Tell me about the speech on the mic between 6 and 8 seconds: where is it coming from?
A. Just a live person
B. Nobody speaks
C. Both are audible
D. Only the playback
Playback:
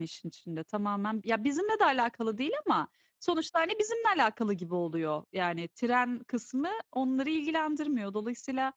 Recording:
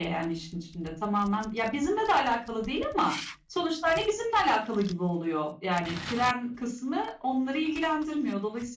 D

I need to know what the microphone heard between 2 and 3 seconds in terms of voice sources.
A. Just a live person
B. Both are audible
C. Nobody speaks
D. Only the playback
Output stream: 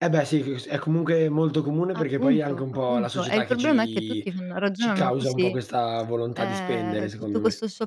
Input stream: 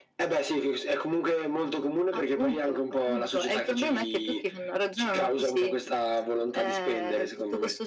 D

